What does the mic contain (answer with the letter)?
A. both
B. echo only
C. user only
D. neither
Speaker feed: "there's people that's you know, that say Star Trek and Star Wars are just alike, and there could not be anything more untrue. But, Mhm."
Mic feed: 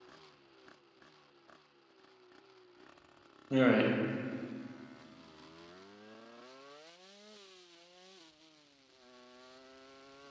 C